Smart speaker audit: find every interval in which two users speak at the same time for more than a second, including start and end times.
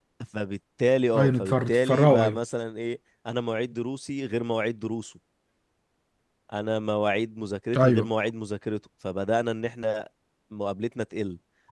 1.2-2.4

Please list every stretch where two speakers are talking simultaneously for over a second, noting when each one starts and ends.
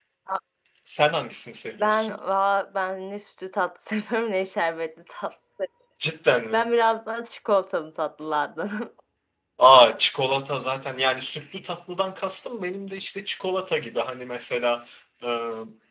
none

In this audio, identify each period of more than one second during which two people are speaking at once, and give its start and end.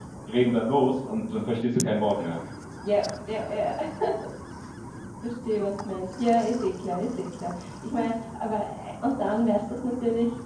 none

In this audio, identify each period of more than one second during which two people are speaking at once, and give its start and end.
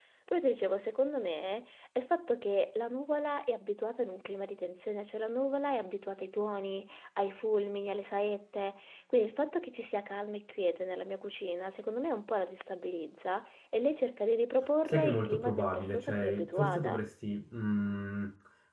14.9-17.0

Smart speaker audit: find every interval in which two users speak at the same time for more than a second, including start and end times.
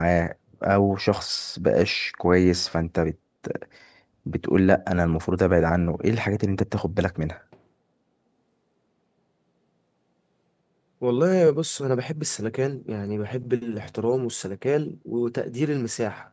none

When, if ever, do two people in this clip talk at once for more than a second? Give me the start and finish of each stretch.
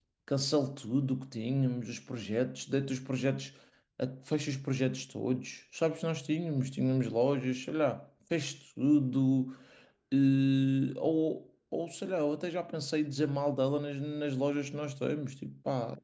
none

